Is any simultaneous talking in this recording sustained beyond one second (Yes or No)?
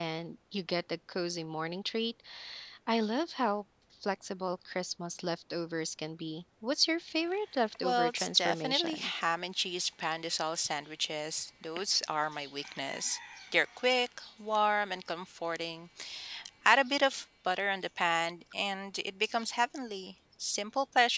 Yes